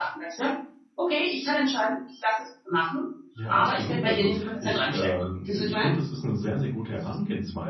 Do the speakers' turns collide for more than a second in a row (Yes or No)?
Yes